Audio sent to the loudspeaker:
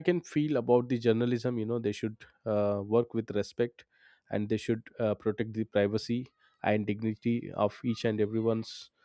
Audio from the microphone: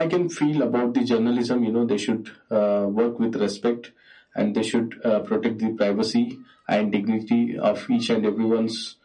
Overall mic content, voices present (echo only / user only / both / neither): echo only